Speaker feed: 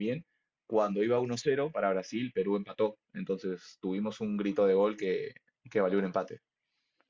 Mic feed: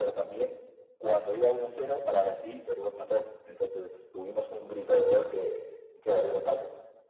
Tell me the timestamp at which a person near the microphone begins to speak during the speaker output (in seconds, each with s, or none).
none